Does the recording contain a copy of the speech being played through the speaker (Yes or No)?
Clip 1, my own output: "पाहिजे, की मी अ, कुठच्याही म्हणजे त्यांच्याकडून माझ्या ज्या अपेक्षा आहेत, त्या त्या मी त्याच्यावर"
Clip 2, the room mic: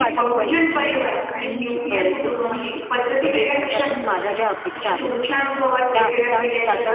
Yes